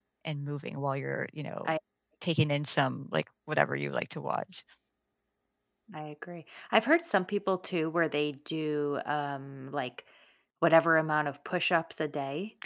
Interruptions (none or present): none